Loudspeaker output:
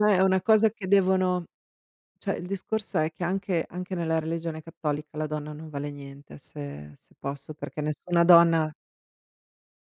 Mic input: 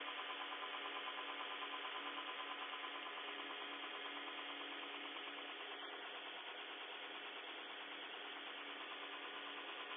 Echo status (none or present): none